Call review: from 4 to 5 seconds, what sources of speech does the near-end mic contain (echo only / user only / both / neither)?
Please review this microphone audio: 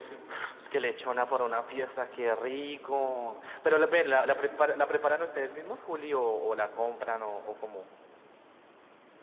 echo only